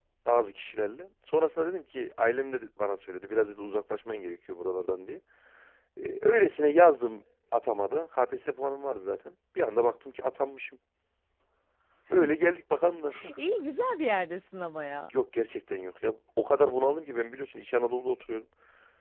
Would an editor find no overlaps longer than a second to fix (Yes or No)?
Yes